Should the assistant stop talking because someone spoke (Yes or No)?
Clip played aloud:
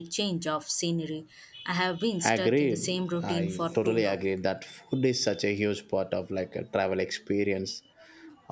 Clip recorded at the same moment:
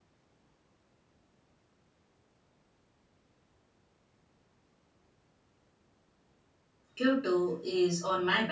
Yes